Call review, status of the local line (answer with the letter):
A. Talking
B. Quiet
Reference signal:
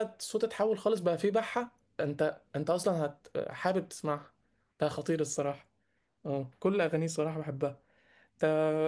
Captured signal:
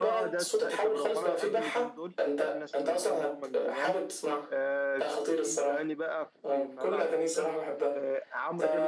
A